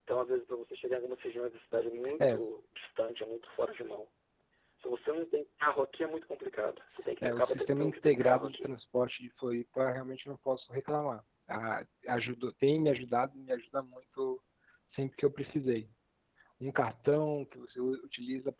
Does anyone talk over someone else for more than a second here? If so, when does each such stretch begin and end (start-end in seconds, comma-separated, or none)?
7.2-8.7